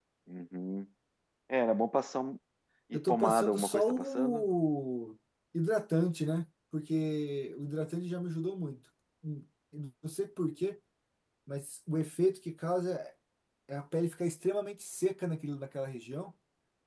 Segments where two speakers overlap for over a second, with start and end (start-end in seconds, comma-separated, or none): 2.9-4.4